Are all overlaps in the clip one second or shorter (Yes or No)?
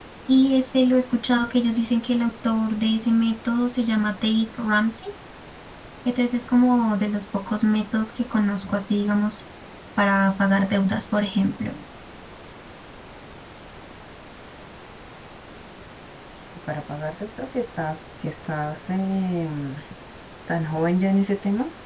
Yes